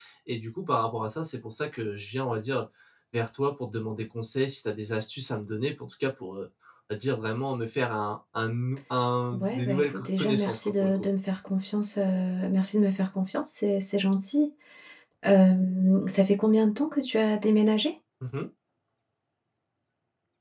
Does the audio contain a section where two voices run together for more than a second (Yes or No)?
Yes